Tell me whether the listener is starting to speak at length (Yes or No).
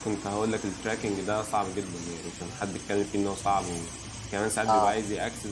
No